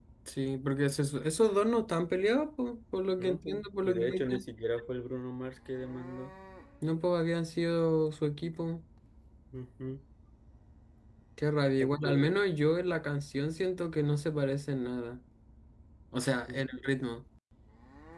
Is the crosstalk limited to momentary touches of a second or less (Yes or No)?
No